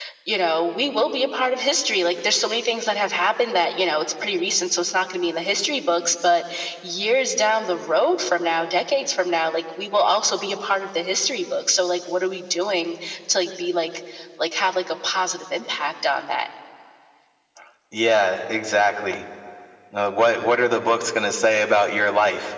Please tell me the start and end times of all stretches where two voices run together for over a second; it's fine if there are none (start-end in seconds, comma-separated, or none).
none